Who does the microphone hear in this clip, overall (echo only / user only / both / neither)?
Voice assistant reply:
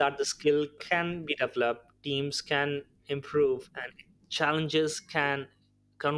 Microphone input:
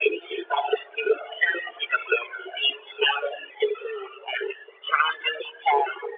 echo only